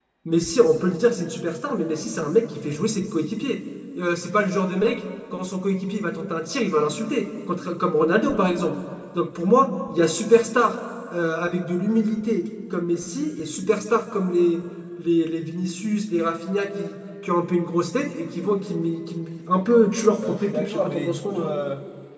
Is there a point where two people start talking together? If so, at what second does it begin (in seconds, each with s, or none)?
20.2 s